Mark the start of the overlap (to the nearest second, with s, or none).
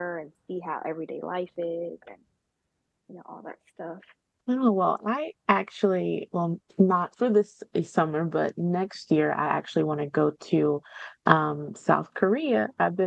none